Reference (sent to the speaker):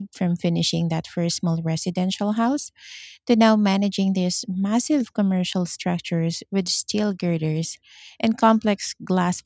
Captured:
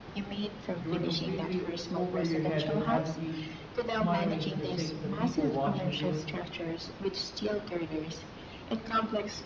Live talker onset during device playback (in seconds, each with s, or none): 0.7 s